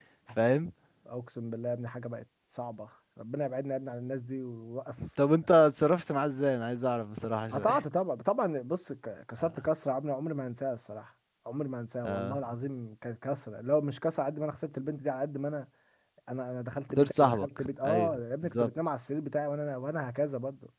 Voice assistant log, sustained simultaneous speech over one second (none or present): present